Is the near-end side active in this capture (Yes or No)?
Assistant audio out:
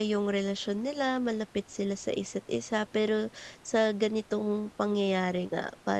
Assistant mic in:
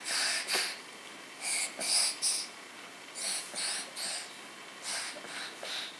No